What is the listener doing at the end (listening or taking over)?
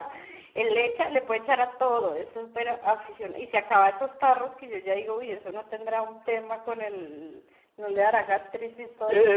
taking over